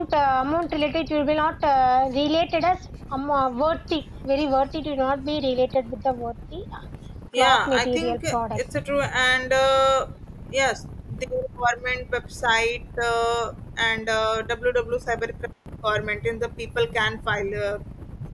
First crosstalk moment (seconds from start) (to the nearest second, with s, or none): 7 s